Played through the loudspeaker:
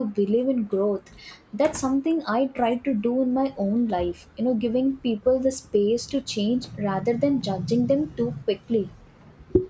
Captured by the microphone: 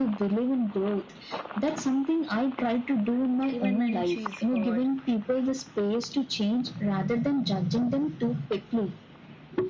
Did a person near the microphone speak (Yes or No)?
Yes